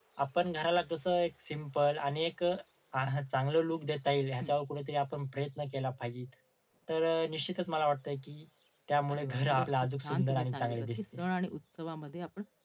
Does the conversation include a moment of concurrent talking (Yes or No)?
Yes